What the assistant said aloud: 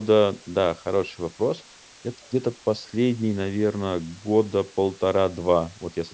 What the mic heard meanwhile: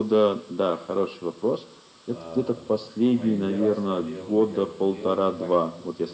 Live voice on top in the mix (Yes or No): No